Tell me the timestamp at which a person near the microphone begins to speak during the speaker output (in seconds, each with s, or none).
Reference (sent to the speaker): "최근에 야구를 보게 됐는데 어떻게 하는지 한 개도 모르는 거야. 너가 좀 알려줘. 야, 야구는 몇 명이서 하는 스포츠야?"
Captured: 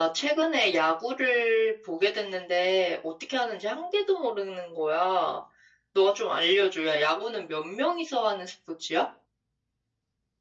none